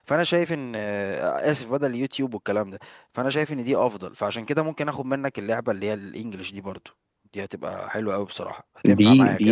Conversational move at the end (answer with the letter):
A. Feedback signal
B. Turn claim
B